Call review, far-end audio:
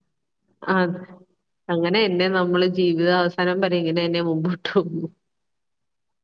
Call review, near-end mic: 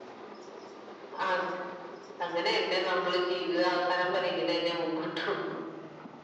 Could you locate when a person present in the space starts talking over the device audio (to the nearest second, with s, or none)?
none